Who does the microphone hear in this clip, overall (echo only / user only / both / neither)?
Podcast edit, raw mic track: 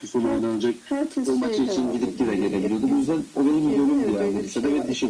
echo only